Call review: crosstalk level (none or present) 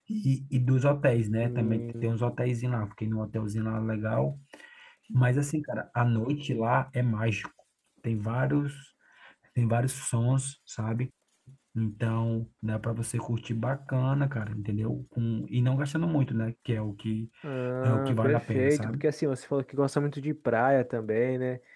present